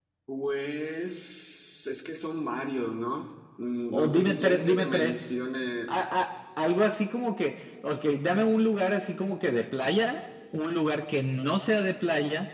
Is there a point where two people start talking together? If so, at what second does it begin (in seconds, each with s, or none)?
3.9 s